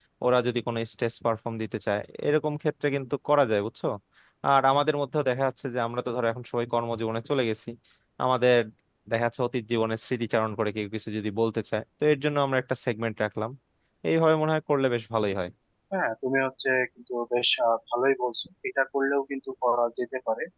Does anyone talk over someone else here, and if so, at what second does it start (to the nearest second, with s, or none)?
none